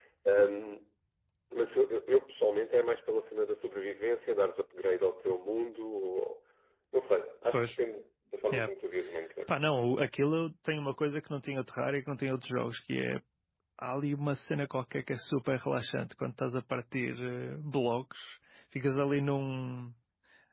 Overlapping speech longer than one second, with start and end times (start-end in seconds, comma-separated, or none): none